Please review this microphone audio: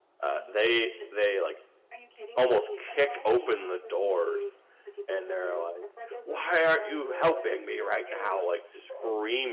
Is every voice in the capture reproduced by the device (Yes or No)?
No